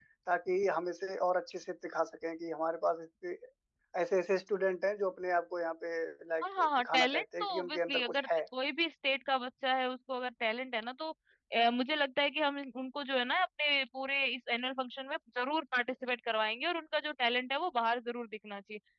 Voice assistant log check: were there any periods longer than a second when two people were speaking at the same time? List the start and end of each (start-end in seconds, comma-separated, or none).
6.4-8.3